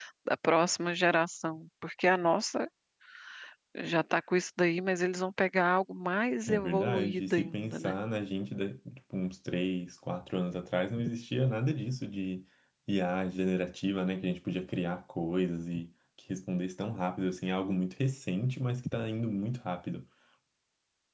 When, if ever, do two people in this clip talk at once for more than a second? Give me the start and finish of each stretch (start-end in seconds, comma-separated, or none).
6.5-7.9